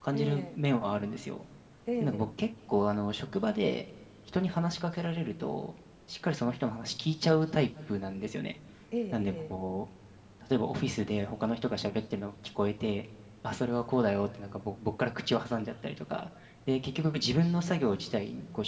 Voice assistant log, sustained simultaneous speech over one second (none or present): none